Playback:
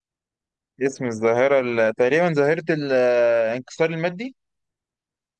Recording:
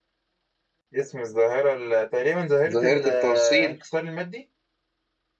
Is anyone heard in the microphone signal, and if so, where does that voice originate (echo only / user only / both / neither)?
both